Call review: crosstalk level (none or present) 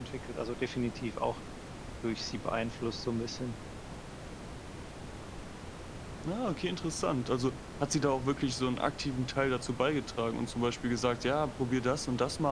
none